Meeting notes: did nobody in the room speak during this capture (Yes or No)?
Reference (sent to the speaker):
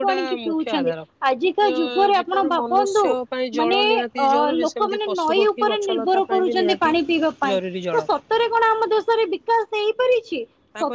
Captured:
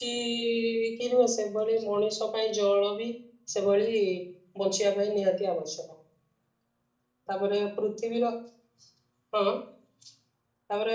No